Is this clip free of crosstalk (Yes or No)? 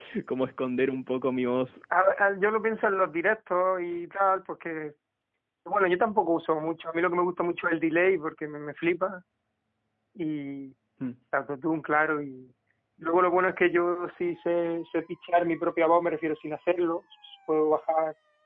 Yes